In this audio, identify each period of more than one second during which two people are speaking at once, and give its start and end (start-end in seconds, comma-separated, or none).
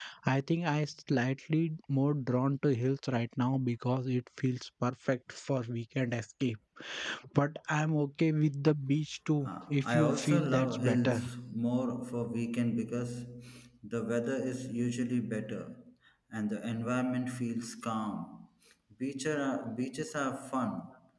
9.4-11.2